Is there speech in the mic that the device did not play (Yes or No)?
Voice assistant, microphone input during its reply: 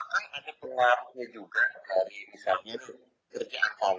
No